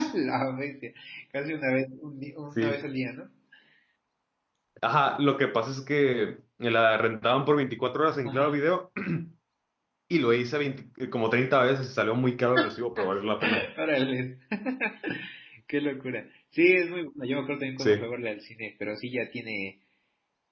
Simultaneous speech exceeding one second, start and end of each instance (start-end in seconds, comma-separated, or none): none